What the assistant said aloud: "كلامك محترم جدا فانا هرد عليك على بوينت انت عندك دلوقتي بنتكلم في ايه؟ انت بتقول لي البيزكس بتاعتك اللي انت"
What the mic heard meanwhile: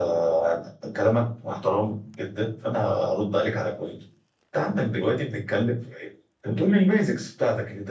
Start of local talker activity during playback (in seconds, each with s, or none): none